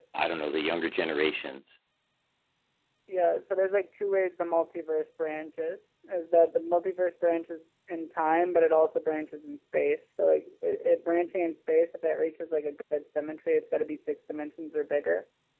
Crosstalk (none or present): none